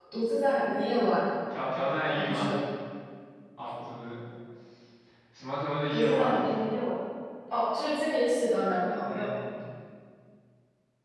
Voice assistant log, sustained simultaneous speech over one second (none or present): none